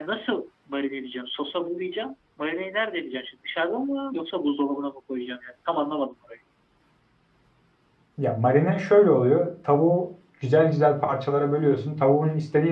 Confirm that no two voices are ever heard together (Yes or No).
Yes